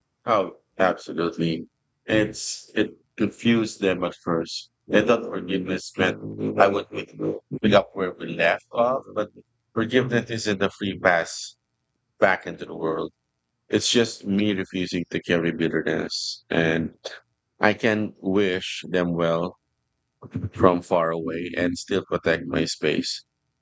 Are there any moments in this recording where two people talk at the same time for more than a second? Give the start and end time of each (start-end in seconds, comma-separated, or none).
none